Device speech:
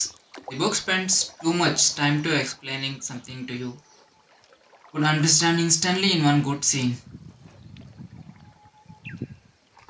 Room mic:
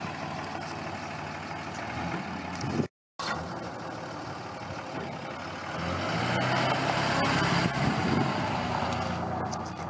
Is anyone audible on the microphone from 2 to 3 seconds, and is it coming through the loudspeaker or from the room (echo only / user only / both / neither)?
neither